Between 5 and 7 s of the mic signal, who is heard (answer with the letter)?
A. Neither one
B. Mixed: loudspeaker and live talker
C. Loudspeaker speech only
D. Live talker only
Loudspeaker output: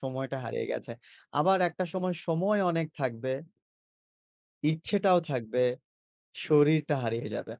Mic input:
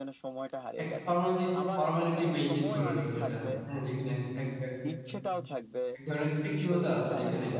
B